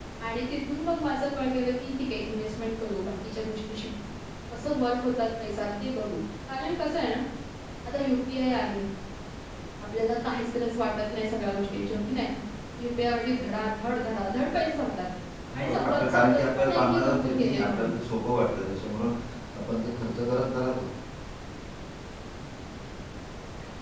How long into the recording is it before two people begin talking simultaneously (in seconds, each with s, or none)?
15.5 s